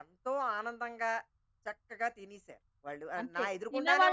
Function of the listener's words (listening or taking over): taking over